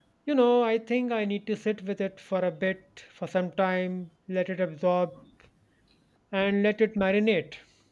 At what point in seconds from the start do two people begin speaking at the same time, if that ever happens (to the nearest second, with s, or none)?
none